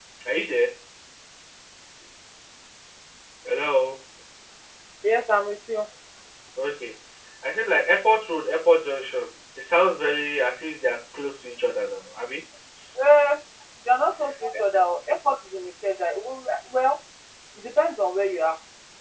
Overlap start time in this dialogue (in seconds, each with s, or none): none